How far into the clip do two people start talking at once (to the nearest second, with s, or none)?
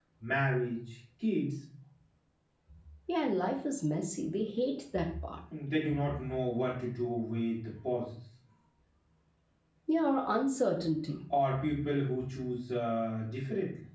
none